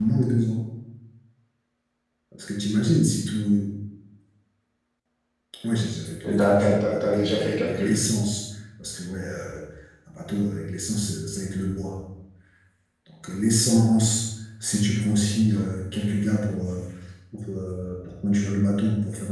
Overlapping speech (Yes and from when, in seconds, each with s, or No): Yes, from 6.2 s